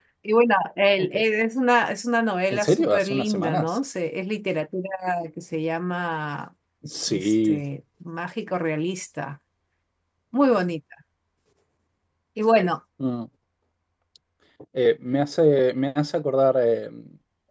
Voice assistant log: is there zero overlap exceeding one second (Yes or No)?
No